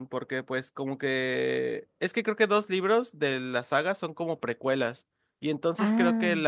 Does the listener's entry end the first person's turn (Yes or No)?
No